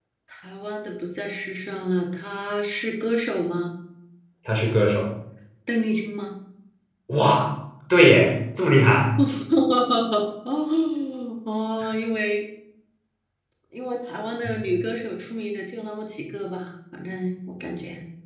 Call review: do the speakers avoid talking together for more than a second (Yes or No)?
Yes